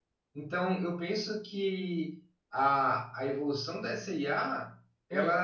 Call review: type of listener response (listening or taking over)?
listening